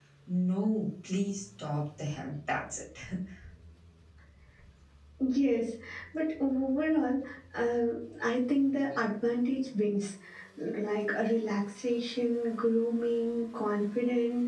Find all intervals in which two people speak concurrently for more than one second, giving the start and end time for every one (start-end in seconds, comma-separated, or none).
none